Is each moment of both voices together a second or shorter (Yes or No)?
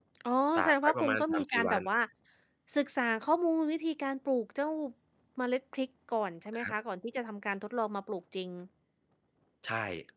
No